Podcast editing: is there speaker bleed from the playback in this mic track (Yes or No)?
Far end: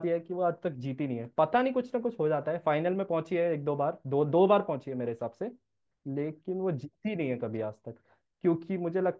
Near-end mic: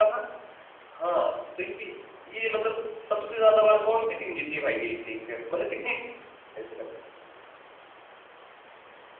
No